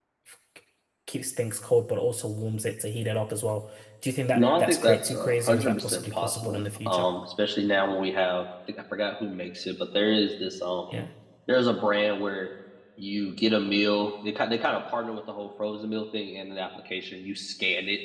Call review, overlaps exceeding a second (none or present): present